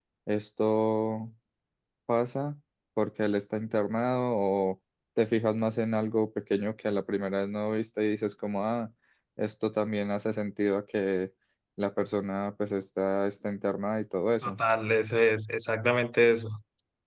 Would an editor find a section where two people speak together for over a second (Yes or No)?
No